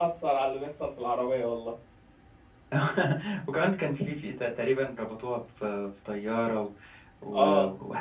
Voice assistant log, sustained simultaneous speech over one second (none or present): none